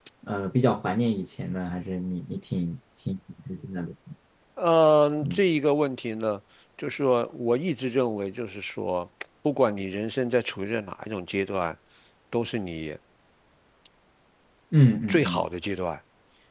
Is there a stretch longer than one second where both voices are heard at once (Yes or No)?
No